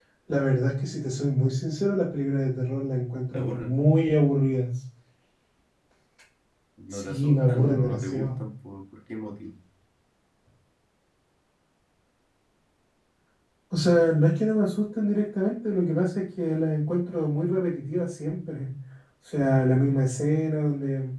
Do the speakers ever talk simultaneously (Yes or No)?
Yes